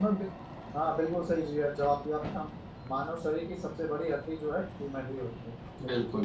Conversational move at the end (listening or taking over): taking over